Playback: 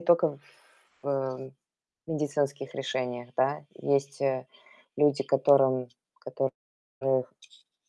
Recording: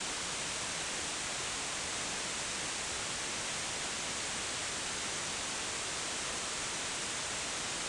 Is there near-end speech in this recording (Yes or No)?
No